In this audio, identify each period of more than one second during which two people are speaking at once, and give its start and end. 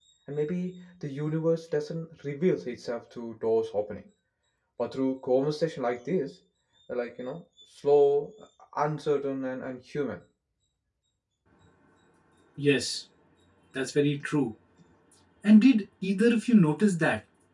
none

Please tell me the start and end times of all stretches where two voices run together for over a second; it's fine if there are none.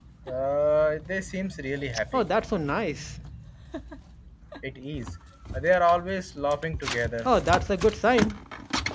none

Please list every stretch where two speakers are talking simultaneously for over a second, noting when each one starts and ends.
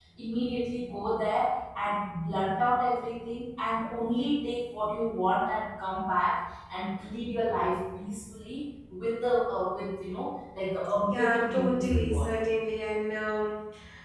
11.0-12.4

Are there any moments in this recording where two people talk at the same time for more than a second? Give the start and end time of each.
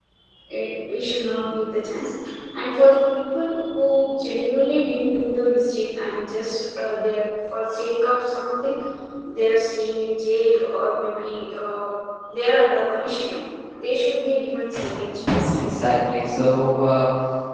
none

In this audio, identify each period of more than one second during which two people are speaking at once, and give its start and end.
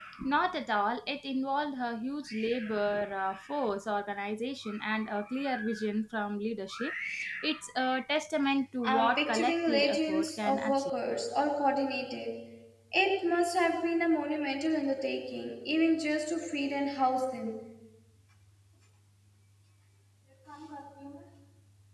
8.8-10.8

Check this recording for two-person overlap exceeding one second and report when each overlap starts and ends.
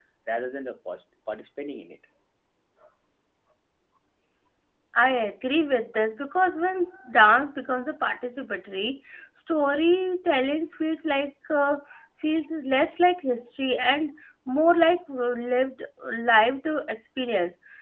none

